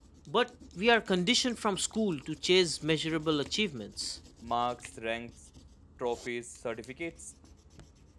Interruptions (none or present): none